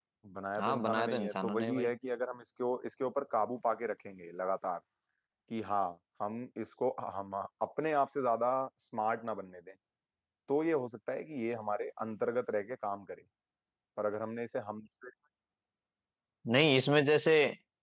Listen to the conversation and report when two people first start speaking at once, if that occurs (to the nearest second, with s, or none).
1 s